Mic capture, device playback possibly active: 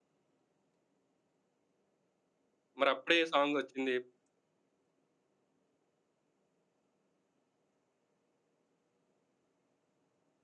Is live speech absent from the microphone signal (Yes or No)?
No